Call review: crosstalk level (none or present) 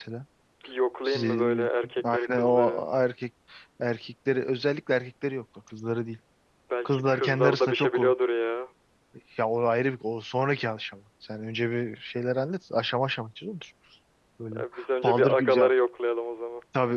present